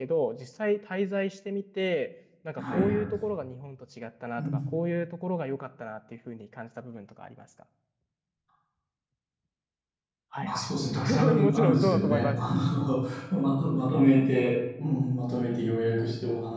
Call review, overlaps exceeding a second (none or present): present